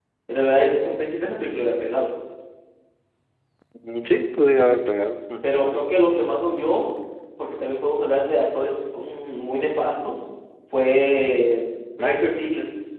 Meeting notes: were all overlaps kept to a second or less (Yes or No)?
Yes